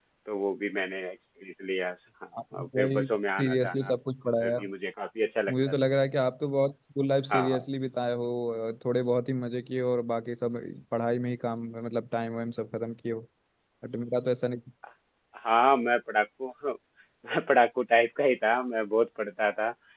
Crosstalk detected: Yes, from 2.5 s

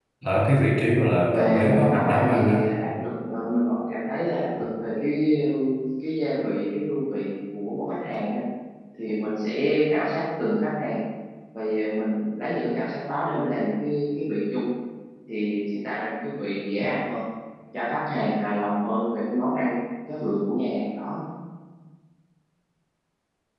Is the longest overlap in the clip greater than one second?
Yes, from 1.3 s

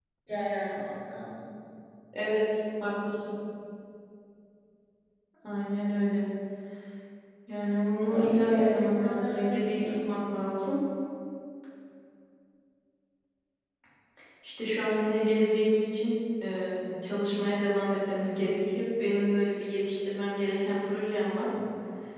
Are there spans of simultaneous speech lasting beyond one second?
Yes, from 8.1 s

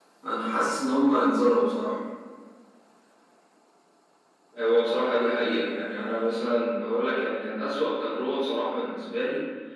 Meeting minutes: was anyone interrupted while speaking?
No

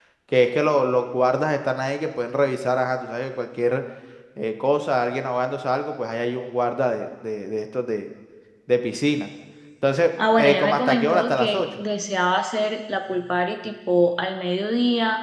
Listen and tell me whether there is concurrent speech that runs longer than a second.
Yes, from 10.3 s

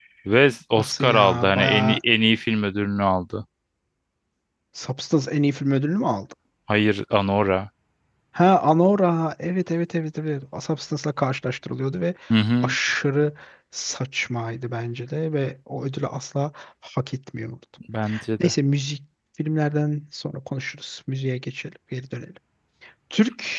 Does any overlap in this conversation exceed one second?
Yes, from 0.8 s

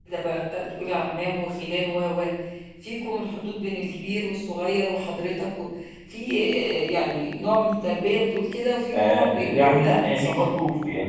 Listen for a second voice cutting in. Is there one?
Yes, from 8.9 s

